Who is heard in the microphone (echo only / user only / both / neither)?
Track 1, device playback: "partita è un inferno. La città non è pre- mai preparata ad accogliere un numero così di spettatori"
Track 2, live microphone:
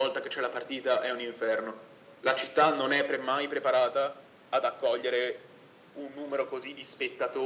echo only